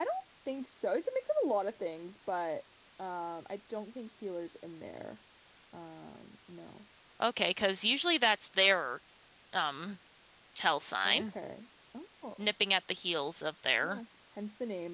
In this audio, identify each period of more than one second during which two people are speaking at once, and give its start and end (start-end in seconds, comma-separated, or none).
none